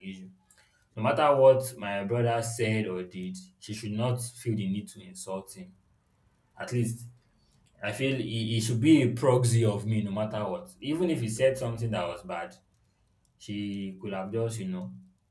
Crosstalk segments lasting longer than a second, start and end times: none

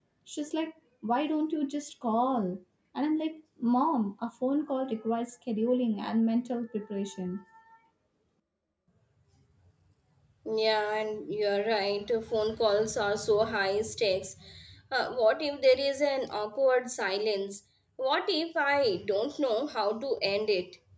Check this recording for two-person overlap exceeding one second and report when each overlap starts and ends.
none

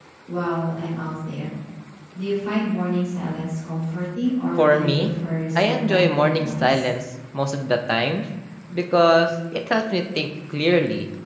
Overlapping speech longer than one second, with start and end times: 5.5-6.9

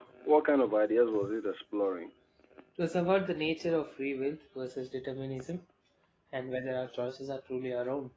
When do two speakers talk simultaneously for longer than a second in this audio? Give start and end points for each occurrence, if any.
none

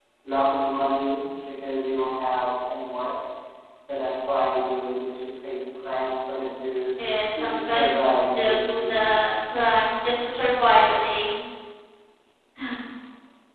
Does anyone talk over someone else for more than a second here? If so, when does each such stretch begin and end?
7.3-9.1

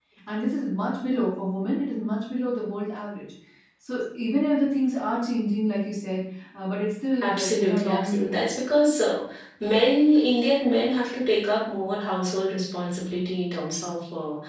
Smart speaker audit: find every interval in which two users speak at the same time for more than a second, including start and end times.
7.2-8.5

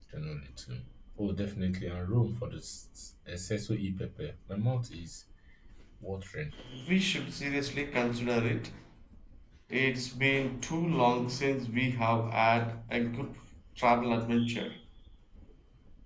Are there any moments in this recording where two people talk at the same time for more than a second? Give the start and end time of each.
none

